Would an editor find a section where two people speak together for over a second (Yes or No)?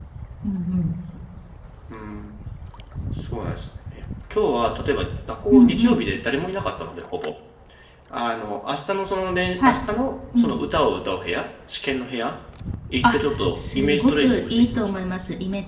Yes